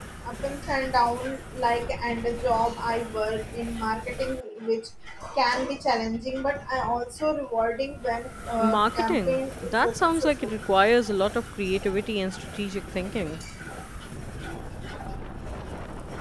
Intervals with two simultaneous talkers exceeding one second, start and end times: 8.6-10.5

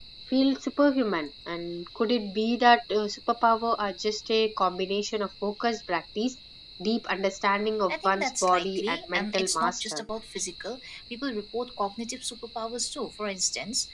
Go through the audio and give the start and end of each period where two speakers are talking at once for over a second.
7.9-10.0

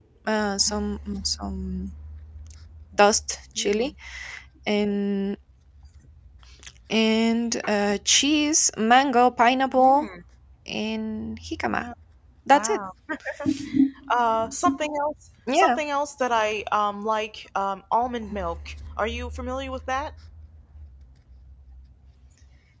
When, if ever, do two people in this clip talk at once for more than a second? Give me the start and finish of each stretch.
none

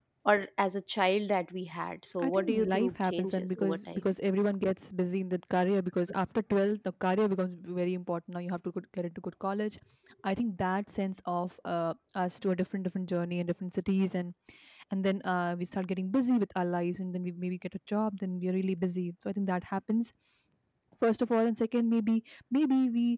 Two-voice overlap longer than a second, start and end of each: 2.3-4.1

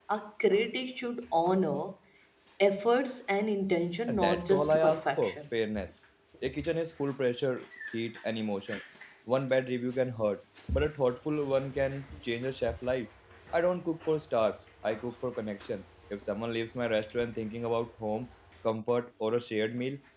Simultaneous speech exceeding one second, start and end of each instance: 4.1-5.4

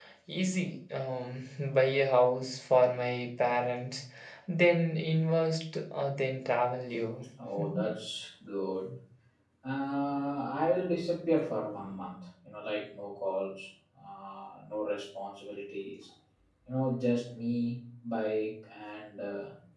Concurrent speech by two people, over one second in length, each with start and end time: none

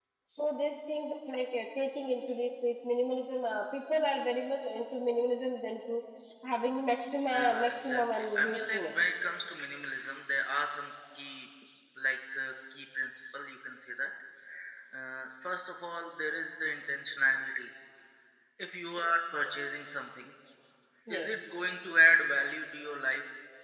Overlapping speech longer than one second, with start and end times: 7.3-8.8

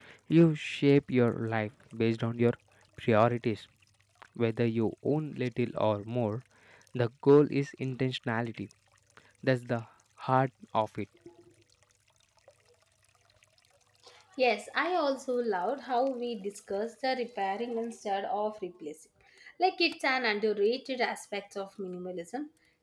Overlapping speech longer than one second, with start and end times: none

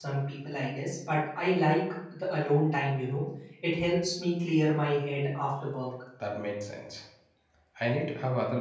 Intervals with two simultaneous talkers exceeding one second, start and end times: none

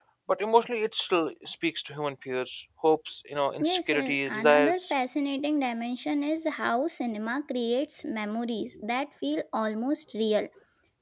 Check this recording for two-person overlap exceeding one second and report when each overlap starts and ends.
3.6-4.9

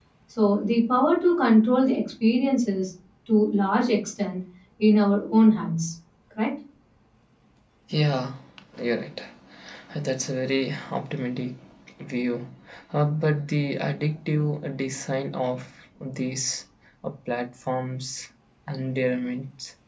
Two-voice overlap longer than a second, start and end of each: none

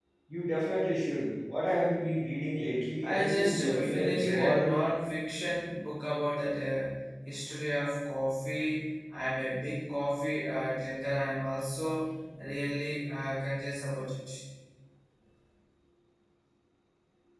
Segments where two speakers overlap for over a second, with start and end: 3.0-4.8

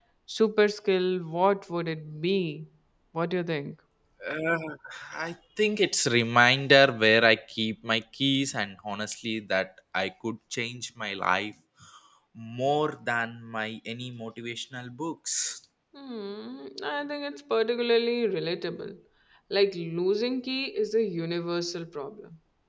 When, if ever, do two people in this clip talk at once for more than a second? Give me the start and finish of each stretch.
none

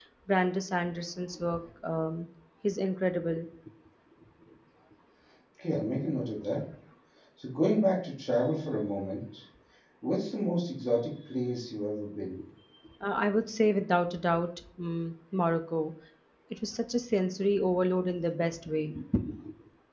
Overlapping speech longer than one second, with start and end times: none

